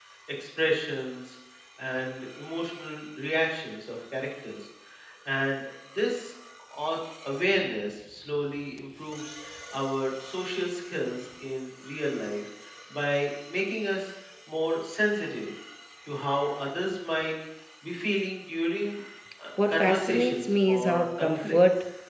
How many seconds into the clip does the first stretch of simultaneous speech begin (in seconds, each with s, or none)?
19.6 s